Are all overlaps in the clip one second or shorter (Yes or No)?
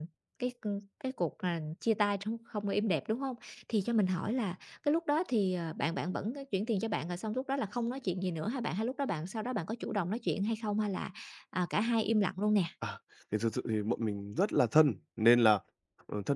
Yes